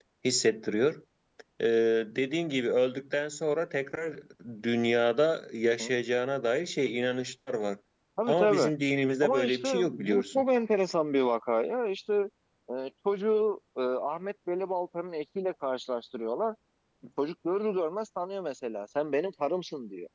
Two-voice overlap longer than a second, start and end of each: 9.2-10.4

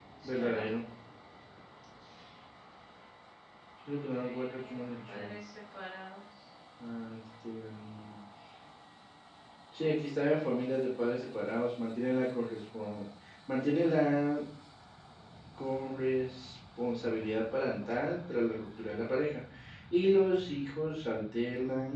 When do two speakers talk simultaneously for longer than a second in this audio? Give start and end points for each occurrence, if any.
4.1-5.3

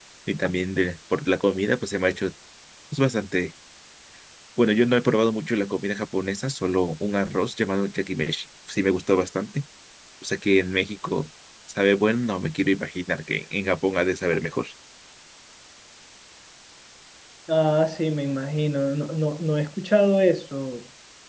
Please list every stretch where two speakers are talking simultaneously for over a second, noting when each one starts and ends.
none

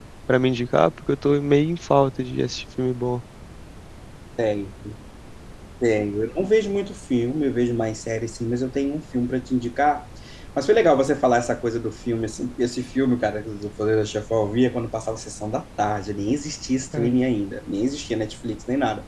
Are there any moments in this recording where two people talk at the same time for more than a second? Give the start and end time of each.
none

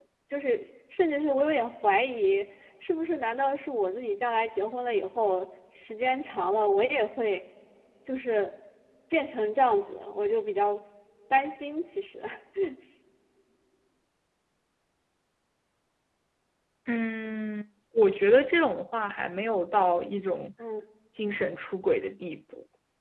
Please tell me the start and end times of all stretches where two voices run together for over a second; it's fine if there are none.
none

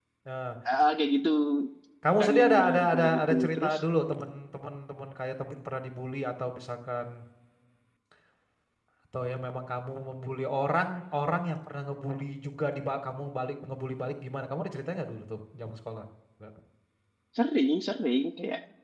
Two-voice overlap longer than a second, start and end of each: 2.2-3.8

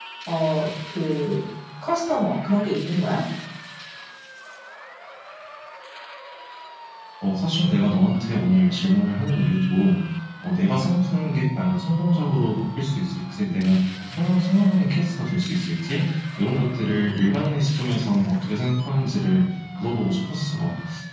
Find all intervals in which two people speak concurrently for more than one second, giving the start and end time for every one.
none

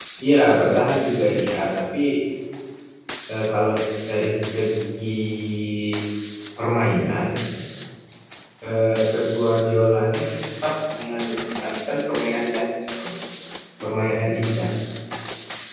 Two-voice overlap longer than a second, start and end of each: none

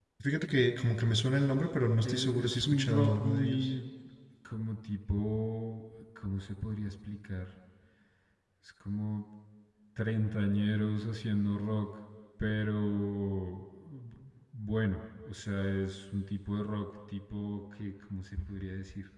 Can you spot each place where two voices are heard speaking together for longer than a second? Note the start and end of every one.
2.0-3.7

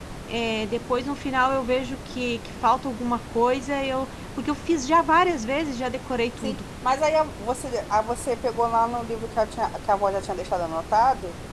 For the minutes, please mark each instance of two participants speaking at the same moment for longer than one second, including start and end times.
none

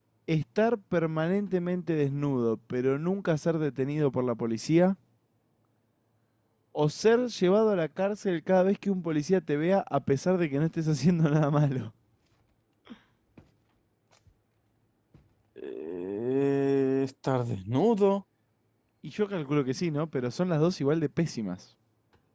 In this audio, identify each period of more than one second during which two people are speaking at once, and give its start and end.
none

